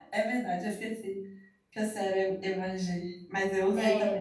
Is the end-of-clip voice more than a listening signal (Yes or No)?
Yes